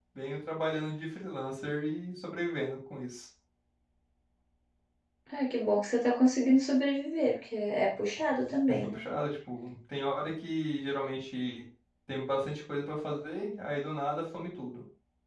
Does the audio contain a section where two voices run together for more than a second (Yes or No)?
No